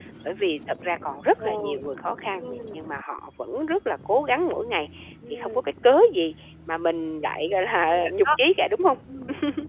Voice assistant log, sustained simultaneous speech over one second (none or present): none